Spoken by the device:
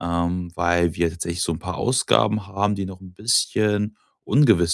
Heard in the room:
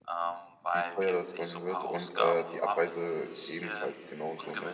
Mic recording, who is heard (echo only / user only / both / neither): both